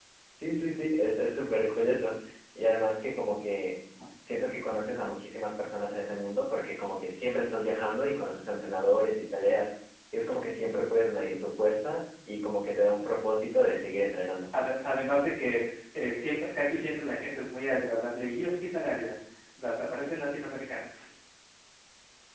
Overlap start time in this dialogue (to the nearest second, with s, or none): none